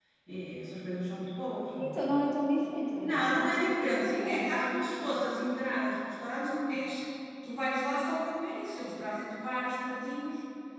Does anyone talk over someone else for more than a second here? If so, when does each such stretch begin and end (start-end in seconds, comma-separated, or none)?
3.0-4.8